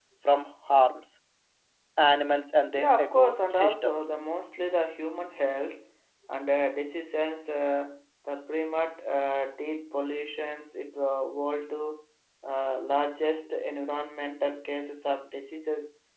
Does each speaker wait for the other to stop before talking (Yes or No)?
No